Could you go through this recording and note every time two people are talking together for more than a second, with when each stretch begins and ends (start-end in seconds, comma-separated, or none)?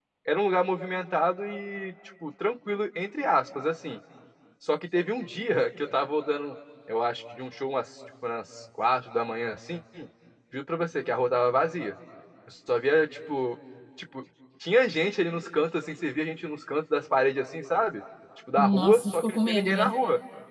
18.6-19.9